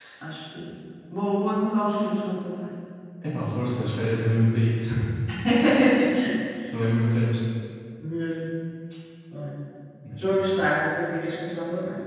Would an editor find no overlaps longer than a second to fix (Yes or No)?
Yes